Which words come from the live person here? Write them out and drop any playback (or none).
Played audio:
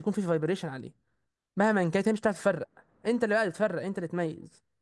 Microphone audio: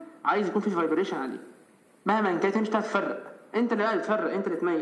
none